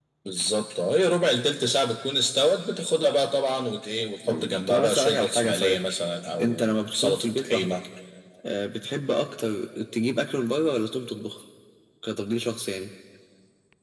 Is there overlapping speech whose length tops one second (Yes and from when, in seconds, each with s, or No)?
Yes, from 4.3 s